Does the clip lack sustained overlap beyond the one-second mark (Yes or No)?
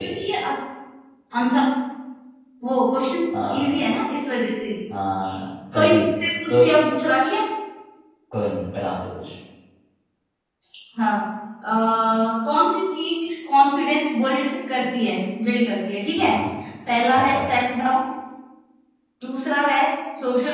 Yes